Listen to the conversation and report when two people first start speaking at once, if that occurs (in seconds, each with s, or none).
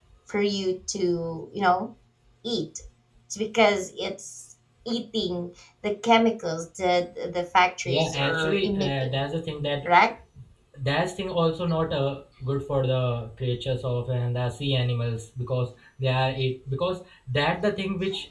7.8 s